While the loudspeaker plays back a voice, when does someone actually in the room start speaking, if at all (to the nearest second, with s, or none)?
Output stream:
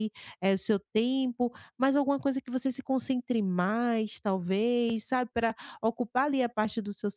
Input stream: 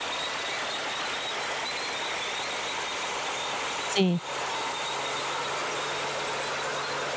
4 s